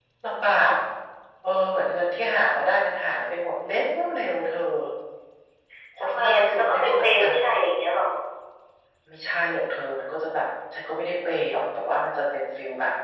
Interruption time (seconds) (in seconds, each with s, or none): 6.0 s